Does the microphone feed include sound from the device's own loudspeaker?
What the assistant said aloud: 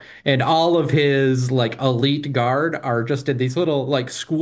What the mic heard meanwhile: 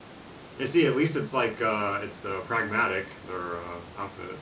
No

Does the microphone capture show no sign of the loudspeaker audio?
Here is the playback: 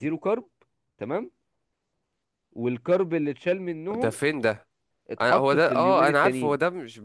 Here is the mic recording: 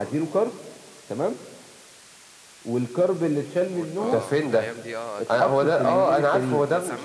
No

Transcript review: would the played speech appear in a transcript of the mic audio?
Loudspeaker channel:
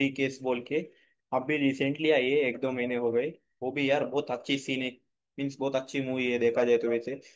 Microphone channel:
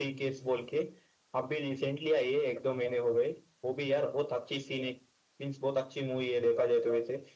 Yes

